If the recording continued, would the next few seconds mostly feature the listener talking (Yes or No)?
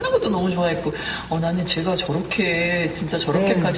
No